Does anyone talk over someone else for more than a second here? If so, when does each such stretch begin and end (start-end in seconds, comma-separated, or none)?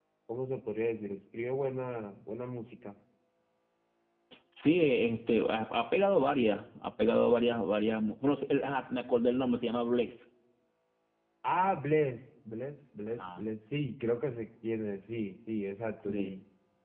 none